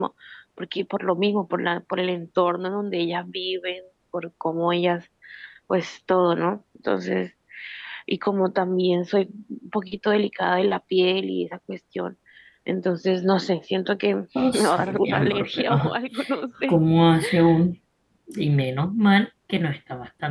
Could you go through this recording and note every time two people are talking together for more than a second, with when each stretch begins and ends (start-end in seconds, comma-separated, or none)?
14.5-15.9